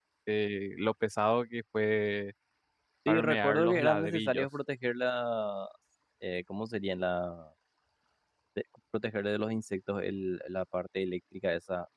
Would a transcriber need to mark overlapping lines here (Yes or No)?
Yes